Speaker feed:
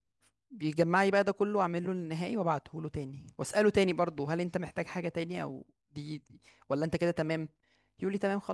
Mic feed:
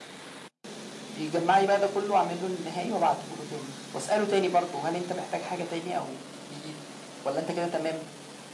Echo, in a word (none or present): present